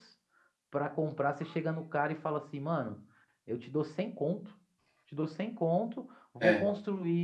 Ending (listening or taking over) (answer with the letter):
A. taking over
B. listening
B